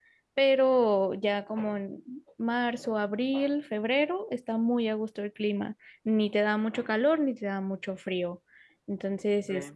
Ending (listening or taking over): taking over